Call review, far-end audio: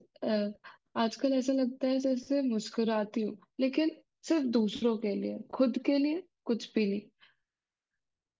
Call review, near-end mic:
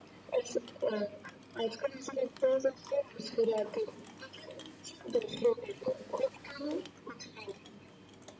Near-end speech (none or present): none